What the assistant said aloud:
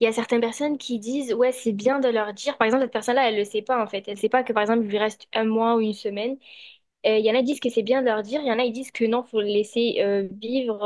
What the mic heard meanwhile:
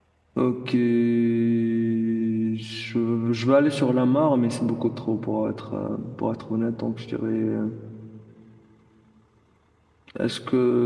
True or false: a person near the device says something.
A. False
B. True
B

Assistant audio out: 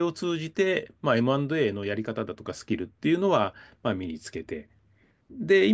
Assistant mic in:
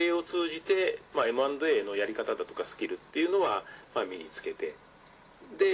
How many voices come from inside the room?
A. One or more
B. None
B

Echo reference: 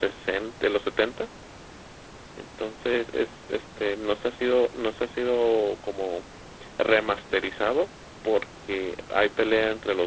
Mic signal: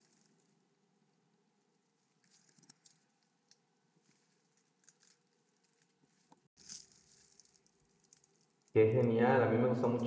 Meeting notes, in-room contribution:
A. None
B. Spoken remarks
B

